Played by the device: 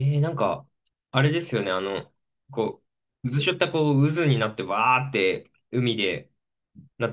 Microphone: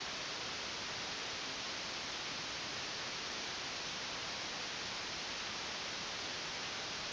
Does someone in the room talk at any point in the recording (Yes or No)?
No